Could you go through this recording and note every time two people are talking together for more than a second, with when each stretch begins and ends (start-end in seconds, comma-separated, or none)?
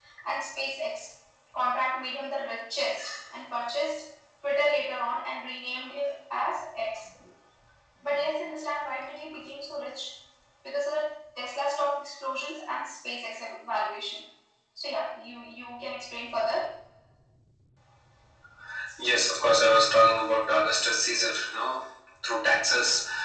none